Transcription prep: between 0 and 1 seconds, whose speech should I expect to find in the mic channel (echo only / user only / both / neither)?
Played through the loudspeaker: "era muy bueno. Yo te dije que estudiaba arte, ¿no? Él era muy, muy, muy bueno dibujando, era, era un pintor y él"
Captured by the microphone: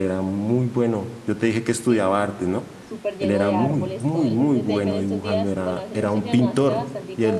echo only